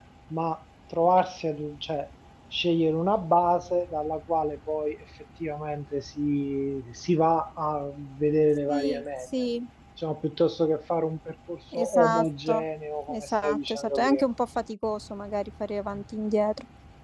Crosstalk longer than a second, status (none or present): present